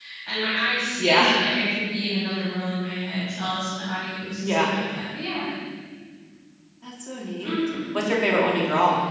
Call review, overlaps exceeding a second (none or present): none